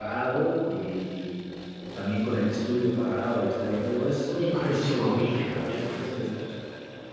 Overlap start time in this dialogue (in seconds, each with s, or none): 4.4 s